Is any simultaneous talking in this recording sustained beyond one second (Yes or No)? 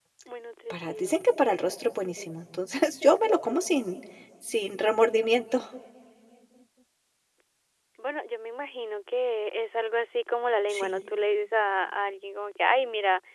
No